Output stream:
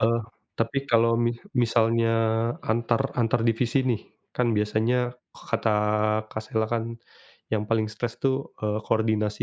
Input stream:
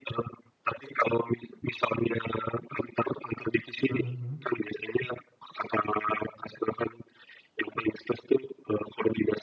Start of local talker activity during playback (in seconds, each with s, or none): 3.9 s